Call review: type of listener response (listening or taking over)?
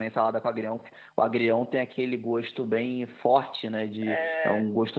listening